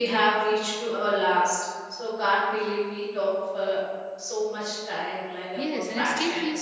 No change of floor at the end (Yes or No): No